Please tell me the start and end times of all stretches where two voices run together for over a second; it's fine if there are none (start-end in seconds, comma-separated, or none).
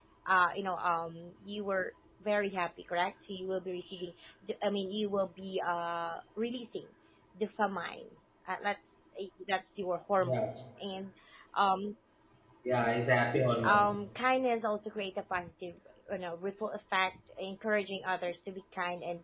none